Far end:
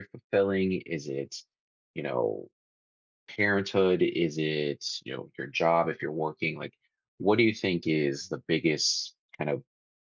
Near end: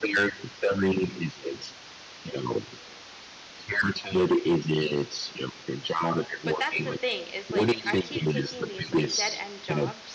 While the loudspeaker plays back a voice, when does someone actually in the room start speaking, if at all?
6.4 s

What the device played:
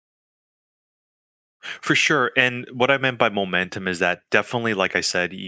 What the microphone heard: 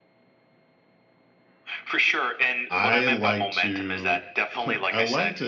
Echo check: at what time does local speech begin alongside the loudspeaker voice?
2.7 s

